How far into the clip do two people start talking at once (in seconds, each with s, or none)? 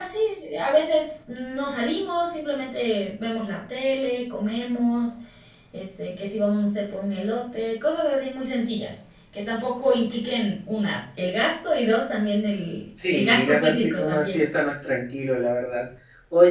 13.0 s